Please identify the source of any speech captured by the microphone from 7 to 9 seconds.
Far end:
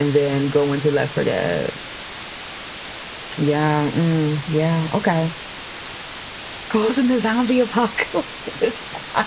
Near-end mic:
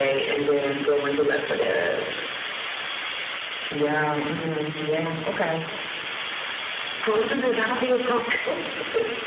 echo only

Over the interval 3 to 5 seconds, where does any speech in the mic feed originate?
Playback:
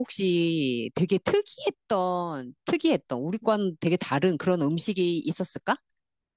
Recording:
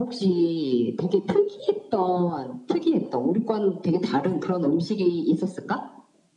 echo only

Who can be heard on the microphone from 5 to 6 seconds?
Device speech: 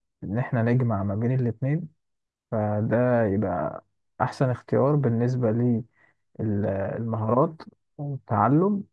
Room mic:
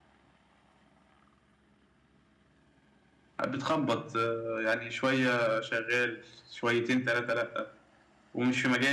user only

